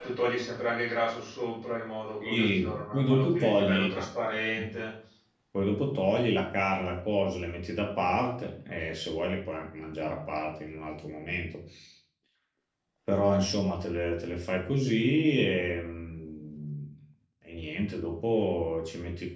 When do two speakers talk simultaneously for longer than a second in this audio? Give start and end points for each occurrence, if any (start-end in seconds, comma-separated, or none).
2.2-3.9